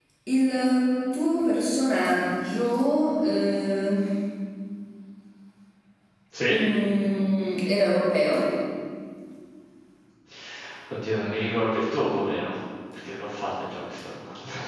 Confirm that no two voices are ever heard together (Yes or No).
Yes